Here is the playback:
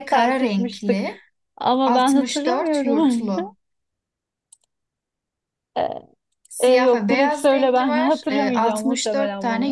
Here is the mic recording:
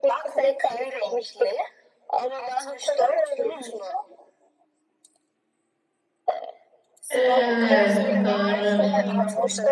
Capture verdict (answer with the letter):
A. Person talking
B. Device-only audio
A